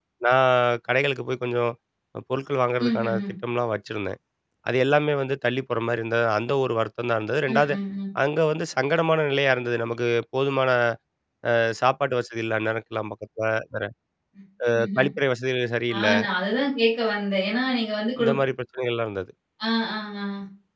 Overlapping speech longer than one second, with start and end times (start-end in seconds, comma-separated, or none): none